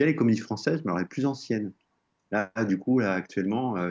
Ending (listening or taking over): listening